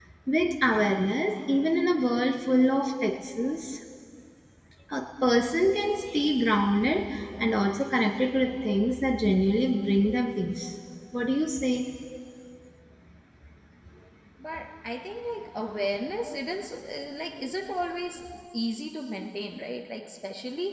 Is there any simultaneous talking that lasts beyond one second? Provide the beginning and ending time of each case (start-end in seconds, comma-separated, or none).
none